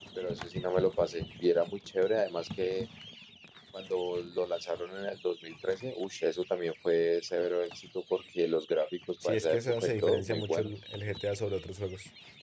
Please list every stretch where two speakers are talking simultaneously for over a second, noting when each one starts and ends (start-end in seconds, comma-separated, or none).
9.2-10.7